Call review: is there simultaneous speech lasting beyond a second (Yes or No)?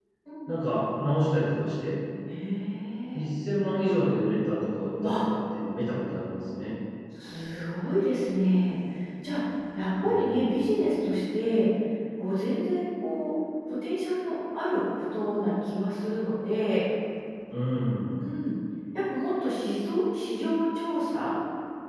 No